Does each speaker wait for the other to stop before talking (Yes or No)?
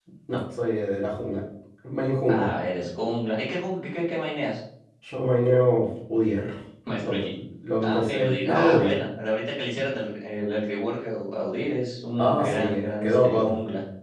No